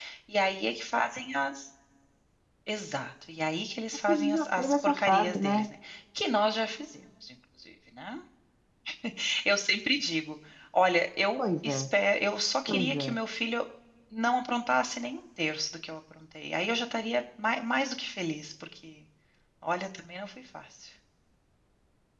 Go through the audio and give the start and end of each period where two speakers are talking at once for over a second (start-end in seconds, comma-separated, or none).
4.1-5.7